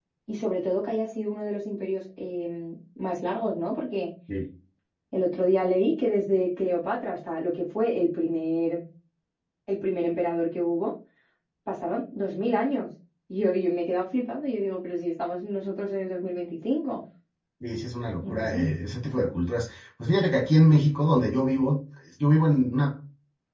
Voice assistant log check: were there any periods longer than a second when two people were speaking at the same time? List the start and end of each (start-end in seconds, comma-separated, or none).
none